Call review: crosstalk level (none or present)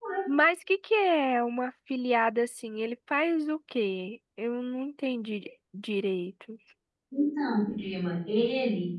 none